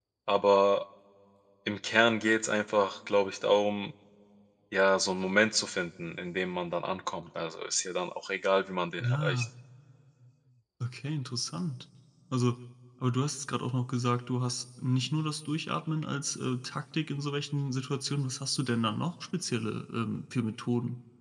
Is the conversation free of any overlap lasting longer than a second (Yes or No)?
Yes